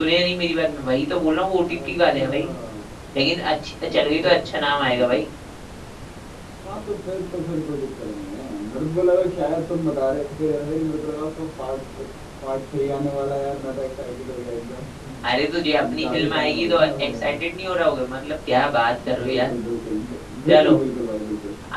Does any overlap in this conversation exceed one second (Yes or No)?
Yes